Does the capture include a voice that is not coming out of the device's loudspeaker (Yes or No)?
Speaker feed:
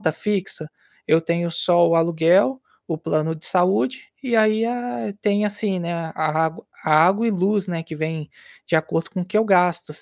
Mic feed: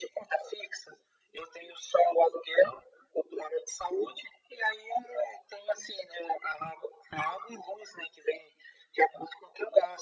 No